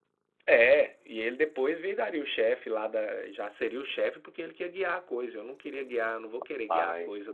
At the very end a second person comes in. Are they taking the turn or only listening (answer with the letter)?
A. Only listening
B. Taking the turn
A